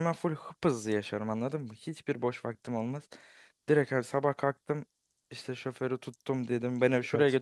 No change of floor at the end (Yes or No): Yes